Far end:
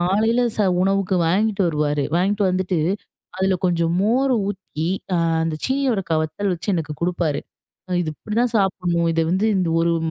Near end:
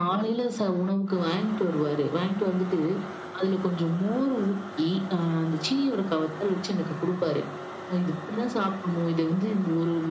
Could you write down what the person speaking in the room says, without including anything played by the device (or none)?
none